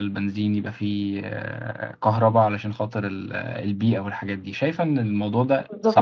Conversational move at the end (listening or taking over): taking over